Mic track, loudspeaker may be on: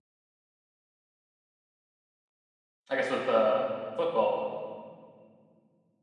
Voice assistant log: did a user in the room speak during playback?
Yes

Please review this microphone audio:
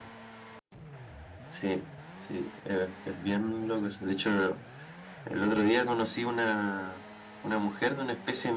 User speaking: No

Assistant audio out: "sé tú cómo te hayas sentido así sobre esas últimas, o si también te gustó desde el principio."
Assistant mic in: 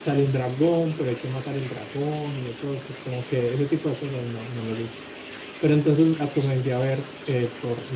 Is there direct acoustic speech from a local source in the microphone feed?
Yes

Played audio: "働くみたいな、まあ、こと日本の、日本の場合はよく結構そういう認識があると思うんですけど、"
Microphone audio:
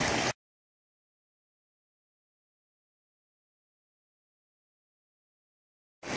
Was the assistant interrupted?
No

